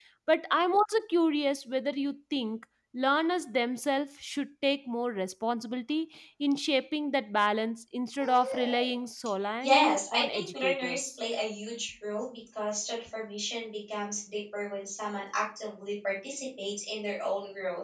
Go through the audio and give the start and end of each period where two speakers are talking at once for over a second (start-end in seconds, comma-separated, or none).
9.6-11.1